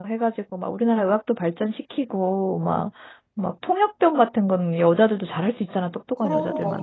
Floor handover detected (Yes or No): No